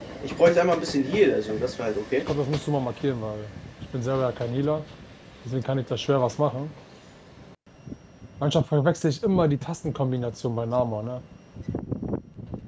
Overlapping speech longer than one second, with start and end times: none

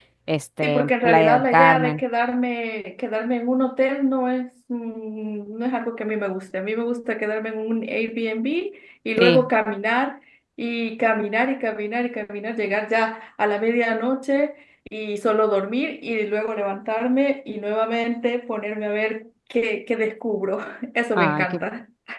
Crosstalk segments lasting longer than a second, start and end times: 0.6-2.0

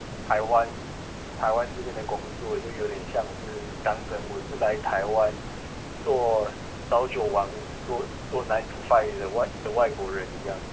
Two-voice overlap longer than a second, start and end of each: none

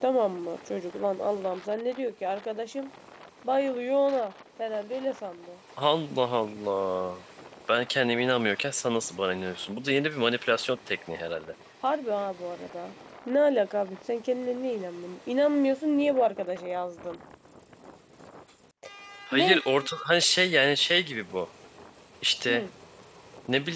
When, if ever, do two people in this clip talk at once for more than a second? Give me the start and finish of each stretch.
none

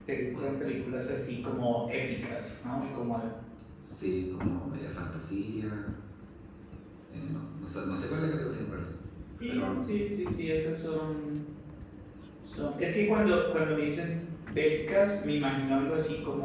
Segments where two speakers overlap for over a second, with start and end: none

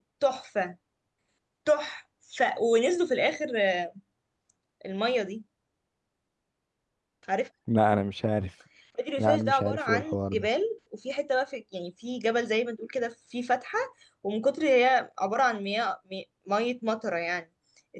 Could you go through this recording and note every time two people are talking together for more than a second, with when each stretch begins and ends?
9.2-10.5

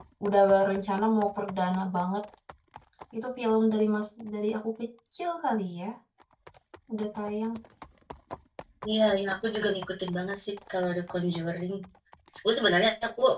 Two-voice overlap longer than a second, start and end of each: none

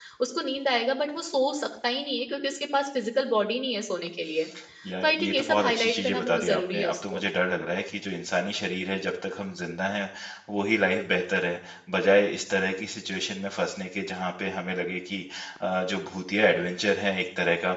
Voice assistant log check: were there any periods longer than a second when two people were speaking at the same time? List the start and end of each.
5.0-7.2

